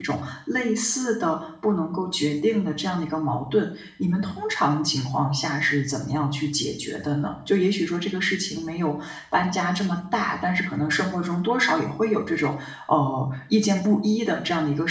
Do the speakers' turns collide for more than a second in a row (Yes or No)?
No